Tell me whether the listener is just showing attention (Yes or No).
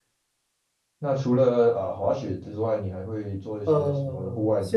No